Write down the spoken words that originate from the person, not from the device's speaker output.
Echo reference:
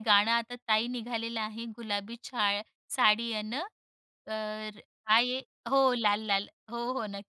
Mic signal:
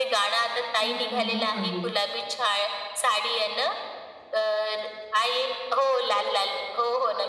खरंच मी तुम्हाला सांगू?

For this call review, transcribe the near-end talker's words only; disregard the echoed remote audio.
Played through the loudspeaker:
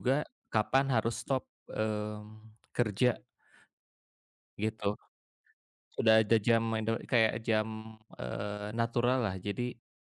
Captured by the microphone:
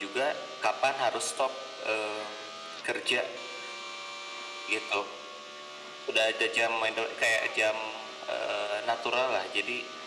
none

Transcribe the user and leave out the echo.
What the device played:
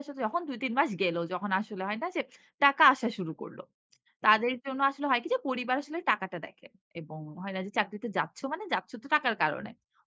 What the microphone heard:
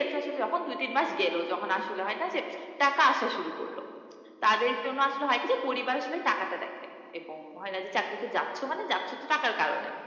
none

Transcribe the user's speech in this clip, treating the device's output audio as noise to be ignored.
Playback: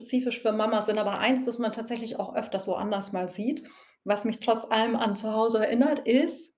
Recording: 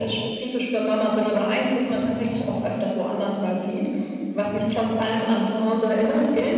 none

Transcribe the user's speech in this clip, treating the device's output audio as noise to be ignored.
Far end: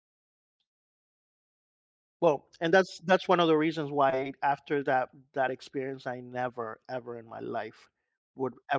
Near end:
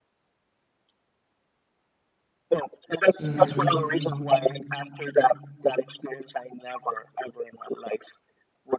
Mhm.

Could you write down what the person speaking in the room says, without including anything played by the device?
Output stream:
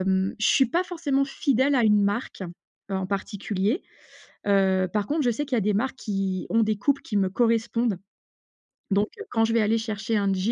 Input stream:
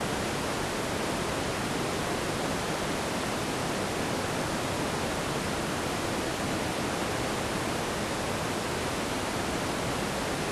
none

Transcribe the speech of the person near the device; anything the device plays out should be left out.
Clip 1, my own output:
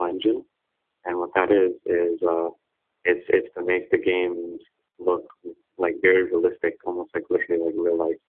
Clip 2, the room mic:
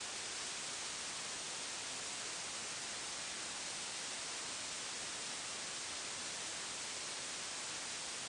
none

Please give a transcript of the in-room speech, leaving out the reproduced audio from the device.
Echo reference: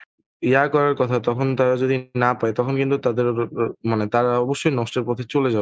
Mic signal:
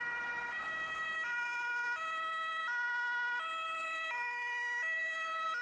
none

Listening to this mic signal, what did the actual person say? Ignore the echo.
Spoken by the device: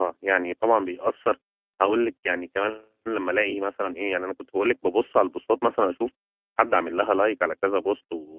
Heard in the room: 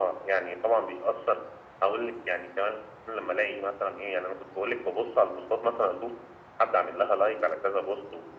none

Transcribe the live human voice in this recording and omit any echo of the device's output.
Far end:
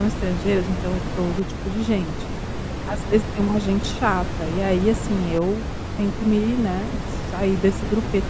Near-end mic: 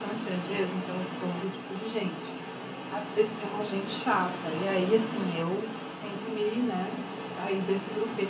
none

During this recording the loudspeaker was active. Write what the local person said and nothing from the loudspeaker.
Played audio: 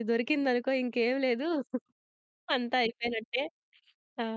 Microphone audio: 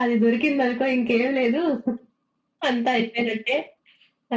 none

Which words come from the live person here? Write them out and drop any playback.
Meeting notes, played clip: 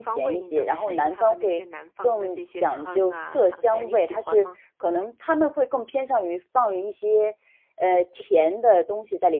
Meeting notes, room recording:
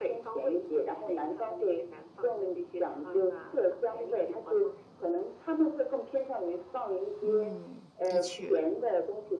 嗯，的确，

